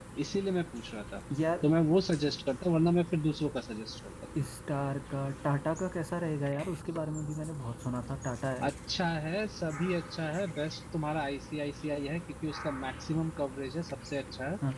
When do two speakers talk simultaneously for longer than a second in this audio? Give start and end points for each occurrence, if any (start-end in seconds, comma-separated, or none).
none